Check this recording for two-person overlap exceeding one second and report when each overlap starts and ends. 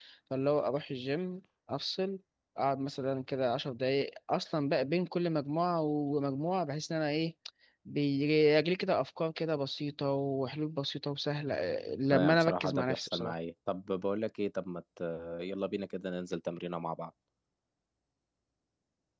12.1-13.3

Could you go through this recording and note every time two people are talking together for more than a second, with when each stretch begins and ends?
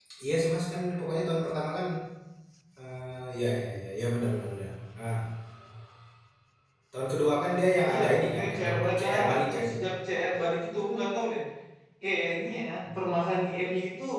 7.9-9.6

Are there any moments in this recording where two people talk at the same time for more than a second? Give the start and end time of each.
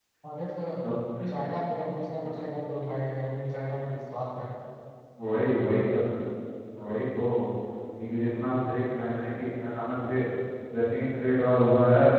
none

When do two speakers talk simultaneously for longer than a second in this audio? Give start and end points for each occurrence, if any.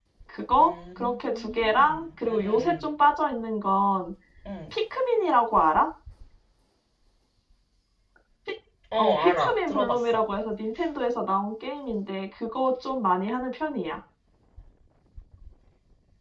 0.6-2.9, 9.0-10.2

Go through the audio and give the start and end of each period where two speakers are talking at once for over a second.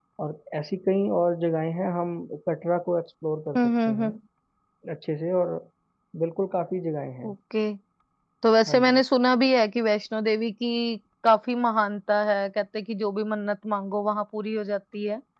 none

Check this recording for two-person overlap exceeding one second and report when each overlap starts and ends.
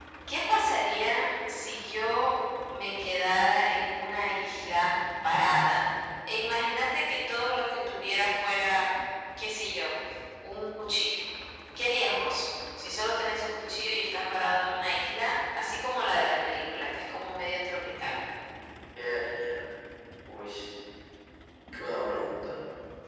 none

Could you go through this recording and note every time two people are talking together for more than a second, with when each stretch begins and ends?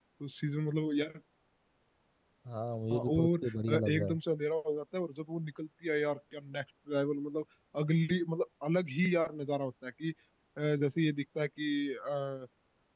2.9-4.2

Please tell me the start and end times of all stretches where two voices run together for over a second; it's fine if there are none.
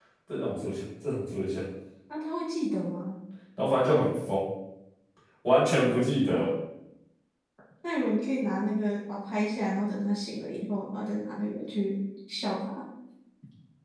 none

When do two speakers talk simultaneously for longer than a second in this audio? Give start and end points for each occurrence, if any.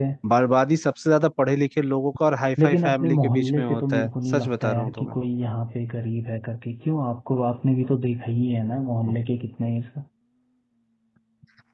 2.6-5.2

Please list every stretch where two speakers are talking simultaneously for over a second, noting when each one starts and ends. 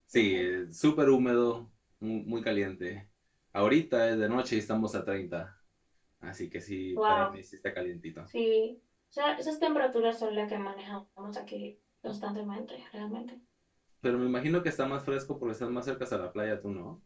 none

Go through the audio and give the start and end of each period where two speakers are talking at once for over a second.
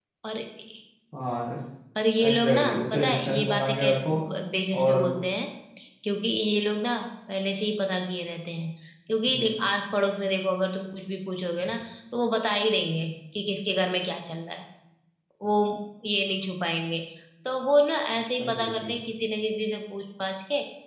2.2-4.1

